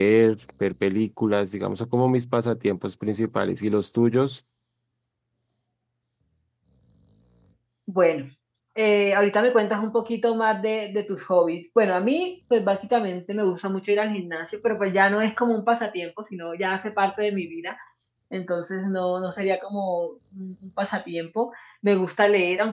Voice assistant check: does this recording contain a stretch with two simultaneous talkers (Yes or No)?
No